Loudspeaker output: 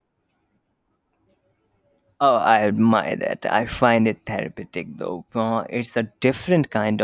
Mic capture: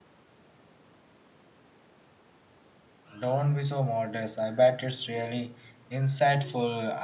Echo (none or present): none